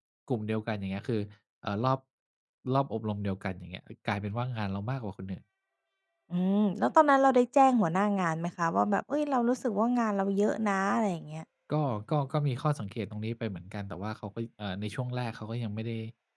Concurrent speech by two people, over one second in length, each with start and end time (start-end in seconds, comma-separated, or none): none